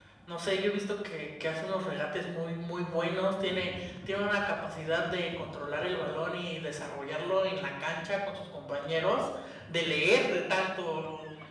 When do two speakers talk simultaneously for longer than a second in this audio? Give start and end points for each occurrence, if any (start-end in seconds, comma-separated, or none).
none